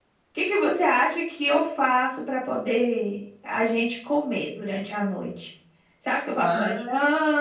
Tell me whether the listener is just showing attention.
Yes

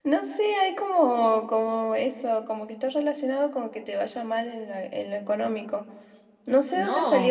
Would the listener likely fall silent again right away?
Yes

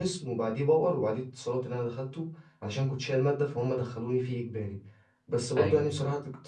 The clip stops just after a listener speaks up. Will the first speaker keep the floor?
Yes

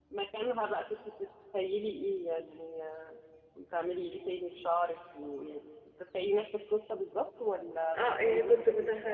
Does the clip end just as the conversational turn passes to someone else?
Yes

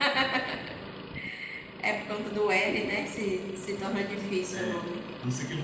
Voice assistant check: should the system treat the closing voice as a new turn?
Yes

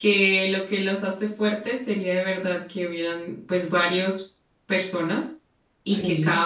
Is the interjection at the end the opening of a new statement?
No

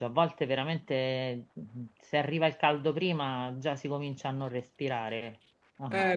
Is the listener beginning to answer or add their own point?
Yes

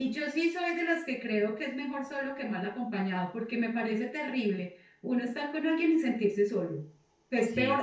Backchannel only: Yes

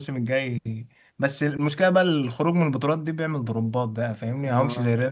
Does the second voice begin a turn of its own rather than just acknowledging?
No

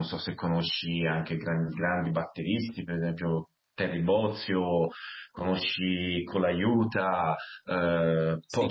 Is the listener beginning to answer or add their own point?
Yes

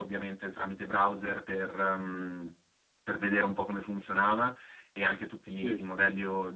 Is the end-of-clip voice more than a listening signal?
No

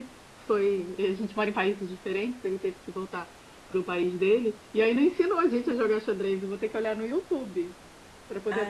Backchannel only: No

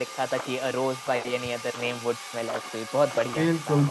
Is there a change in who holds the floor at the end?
Yes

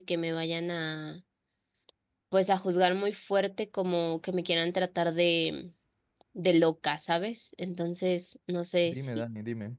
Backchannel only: No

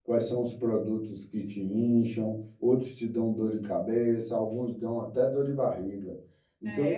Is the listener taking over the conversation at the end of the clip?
Yes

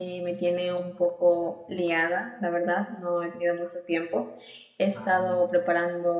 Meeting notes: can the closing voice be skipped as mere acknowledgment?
Yes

